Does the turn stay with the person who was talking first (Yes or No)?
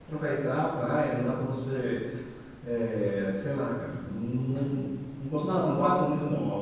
Yes